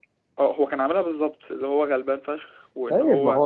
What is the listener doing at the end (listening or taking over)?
taking over